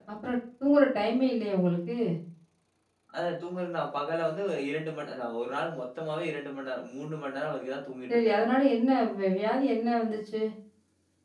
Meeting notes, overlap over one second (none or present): none